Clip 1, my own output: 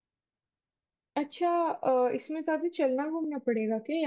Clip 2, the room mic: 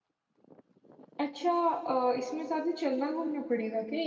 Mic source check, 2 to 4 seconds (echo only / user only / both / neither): echo only